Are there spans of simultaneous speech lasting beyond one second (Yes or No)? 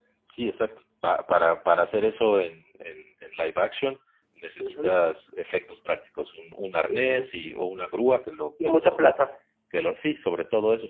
No